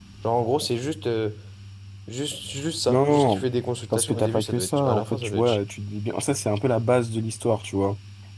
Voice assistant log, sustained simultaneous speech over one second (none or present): present